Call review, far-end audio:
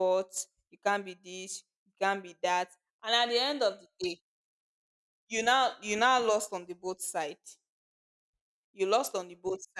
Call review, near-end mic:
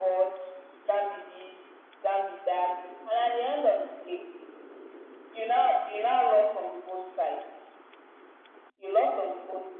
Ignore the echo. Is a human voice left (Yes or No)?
No